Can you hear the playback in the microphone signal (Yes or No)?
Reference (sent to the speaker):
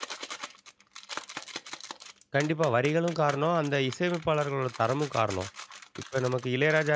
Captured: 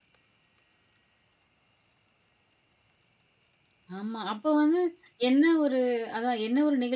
No